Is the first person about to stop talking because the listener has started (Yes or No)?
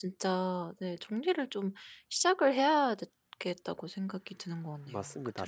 Yes